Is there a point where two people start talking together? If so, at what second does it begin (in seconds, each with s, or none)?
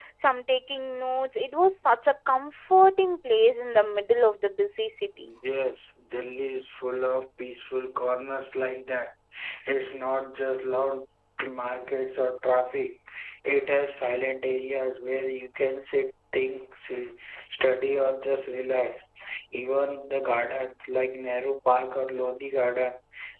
none